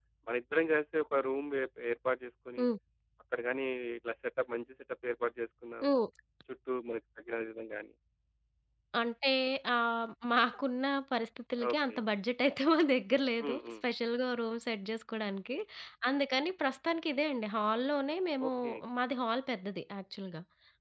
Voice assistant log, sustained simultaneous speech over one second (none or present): none